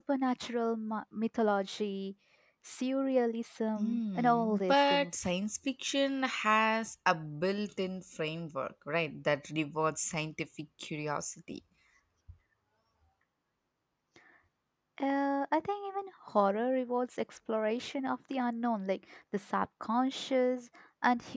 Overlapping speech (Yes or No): Yes